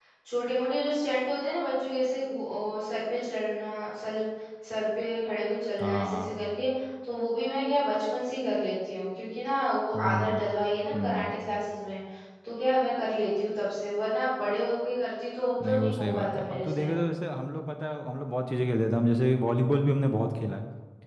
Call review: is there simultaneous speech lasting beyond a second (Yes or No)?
Yes